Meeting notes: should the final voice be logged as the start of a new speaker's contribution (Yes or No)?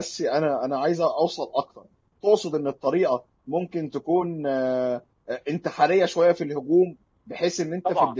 No